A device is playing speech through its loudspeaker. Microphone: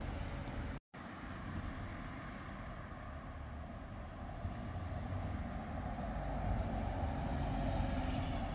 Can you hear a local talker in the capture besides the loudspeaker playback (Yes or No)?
No